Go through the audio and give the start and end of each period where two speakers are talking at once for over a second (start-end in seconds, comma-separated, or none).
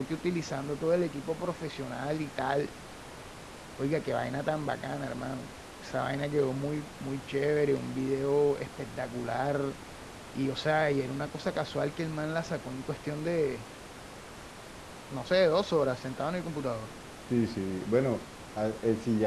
none